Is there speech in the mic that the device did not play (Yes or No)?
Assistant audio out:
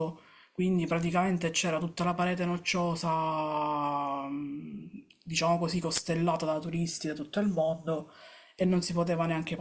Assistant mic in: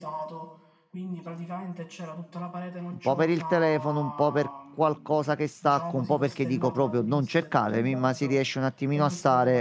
Yes